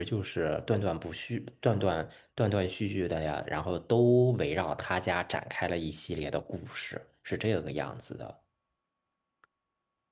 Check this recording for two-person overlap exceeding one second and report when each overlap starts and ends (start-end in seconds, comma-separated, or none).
none